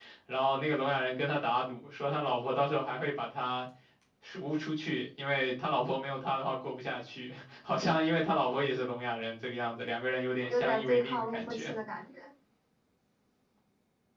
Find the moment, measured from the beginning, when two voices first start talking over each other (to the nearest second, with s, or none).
10 s